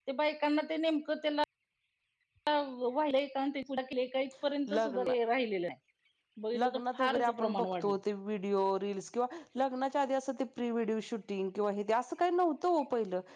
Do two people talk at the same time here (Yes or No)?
Yes